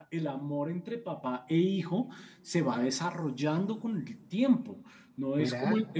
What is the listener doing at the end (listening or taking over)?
listening